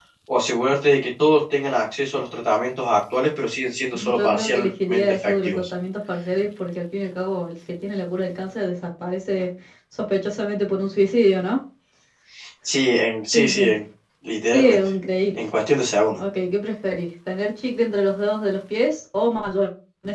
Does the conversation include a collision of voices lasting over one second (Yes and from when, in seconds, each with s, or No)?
Yes, from 4.0 s